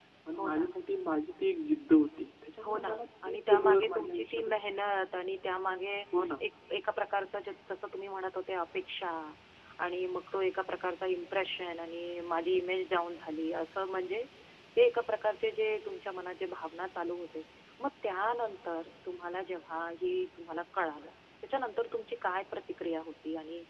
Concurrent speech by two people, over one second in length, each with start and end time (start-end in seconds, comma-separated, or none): 2.6-4.6